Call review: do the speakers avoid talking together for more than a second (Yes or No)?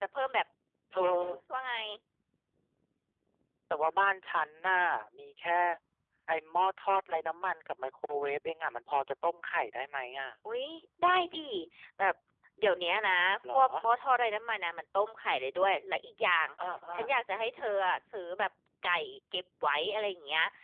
Yes